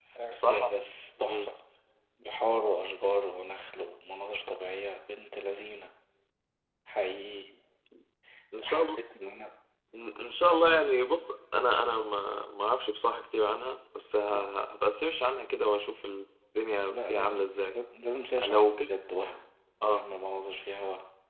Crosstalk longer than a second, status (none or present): none